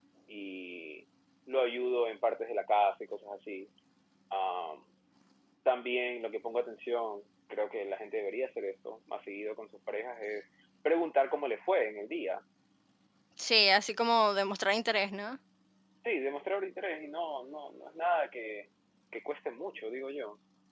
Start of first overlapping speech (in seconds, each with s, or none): none